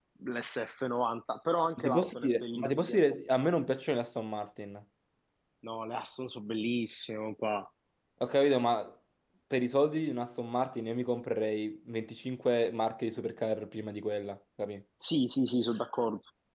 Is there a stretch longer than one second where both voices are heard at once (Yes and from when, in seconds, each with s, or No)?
Yes, from 1.8 s